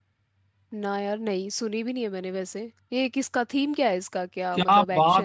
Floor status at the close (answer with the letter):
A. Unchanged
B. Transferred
B